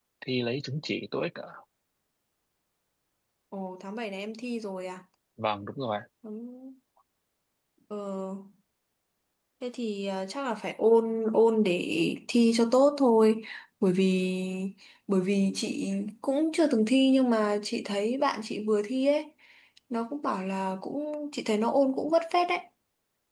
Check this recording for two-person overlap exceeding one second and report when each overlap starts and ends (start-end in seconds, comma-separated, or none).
none